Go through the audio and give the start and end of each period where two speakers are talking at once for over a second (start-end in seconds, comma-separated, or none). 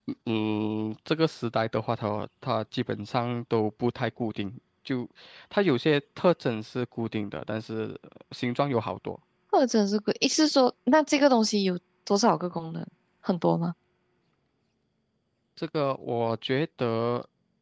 none